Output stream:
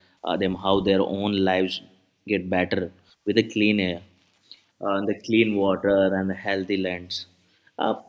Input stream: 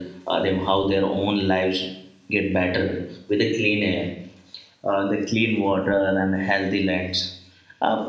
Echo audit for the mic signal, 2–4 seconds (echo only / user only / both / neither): echo only